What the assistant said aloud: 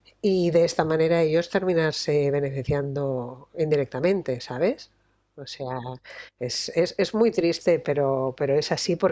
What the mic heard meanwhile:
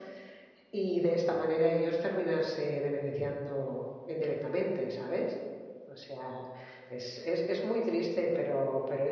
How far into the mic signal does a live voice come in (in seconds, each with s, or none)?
none